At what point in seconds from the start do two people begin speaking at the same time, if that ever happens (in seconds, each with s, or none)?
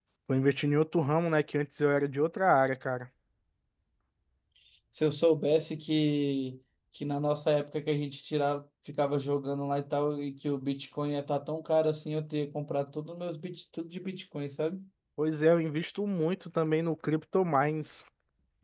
none